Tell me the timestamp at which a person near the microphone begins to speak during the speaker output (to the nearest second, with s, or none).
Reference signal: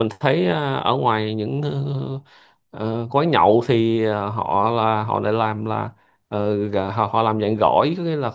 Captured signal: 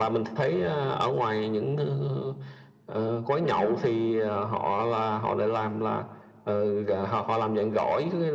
3 s